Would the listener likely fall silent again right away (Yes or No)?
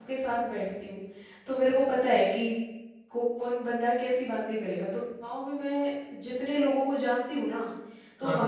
Yes